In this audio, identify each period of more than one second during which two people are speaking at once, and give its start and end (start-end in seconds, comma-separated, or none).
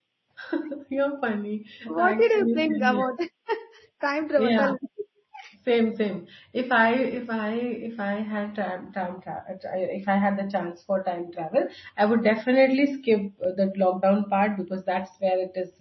1.9-3.1